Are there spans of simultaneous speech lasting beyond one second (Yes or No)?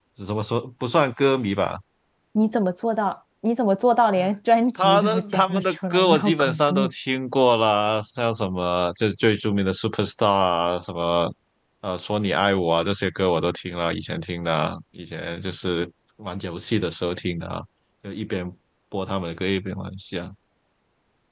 Yes